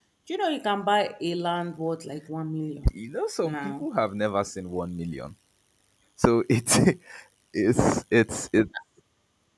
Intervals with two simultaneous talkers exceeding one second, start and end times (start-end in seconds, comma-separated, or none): none